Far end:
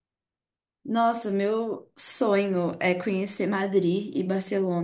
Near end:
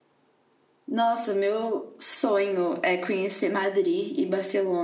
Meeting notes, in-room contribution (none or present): none